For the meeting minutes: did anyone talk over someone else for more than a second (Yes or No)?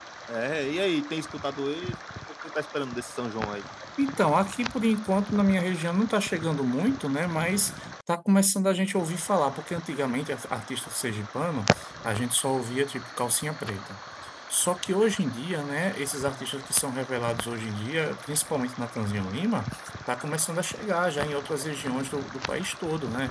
No